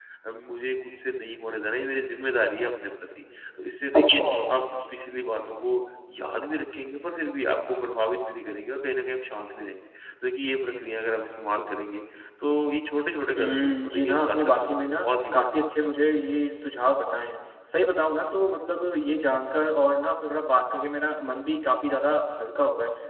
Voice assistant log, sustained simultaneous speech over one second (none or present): present